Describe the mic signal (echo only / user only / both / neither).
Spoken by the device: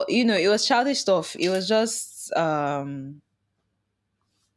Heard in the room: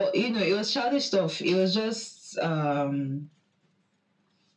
echo only